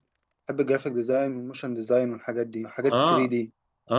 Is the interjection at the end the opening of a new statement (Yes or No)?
Yes